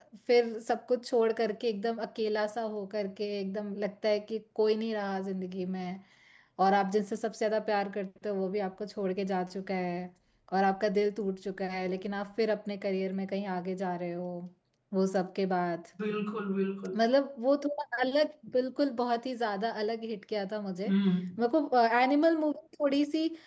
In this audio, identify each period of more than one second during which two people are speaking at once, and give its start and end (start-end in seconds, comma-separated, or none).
none